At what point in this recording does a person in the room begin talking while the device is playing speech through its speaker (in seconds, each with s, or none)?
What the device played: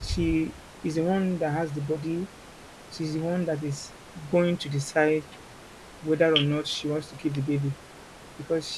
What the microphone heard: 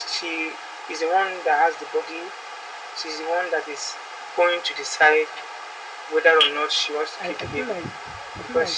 7.2 s